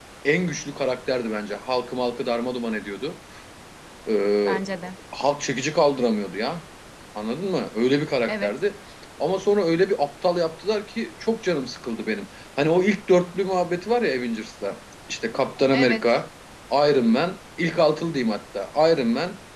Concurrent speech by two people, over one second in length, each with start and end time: none

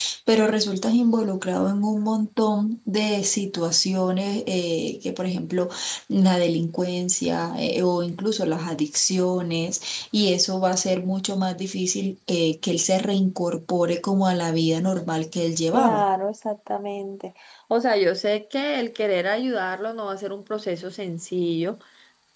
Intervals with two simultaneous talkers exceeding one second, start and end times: none

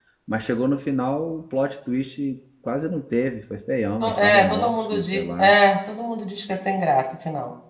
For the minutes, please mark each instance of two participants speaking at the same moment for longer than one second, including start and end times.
4.0-5.5

